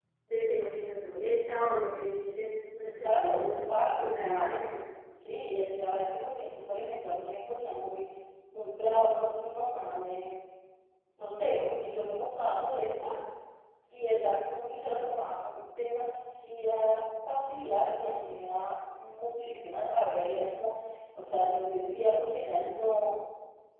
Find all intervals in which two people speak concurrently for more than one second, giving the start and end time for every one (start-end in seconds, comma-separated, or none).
3.0-4.6